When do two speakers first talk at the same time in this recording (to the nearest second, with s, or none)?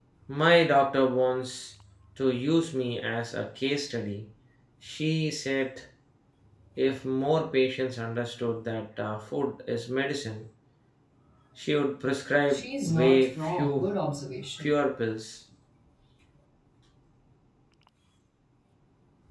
13 s